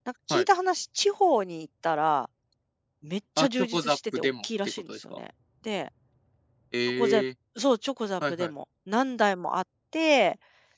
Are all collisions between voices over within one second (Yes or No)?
No